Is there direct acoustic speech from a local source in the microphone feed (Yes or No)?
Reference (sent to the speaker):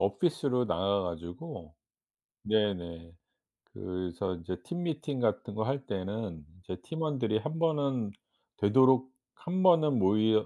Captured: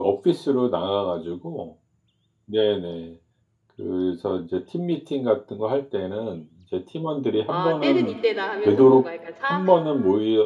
Yes